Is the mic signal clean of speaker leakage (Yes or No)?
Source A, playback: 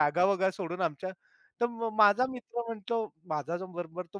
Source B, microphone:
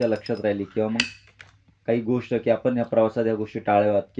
Yes